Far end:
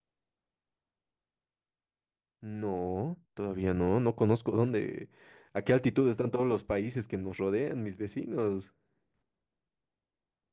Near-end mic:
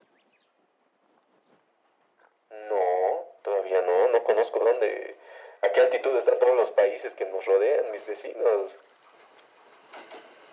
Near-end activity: none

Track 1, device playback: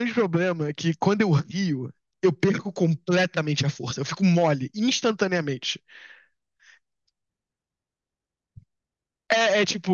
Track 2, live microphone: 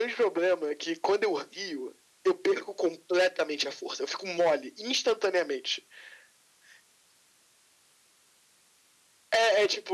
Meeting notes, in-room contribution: none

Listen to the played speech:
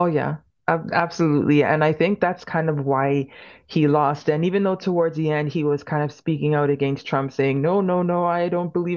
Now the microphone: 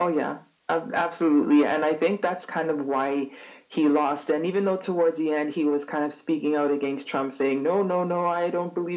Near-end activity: none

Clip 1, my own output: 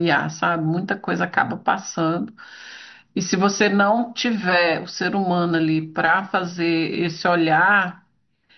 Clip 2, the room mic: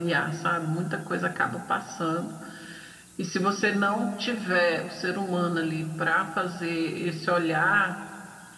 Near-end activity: none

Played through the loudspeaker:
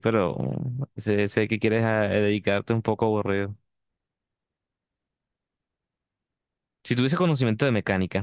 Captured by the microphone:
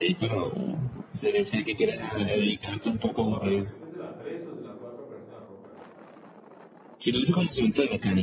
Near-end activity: present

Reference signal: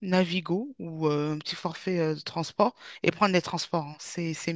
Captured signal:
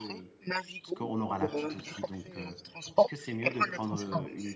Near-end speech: present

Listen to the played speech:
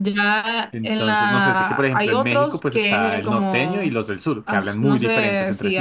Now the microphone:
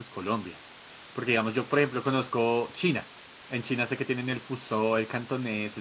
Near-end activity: present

